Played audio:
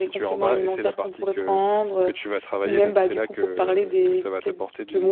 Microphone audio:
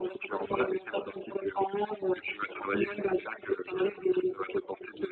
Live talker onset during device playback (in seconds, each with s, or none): none